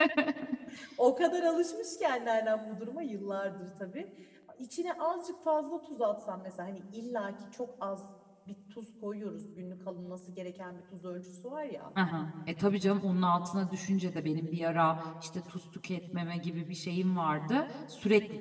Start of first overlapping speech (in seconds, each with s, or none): none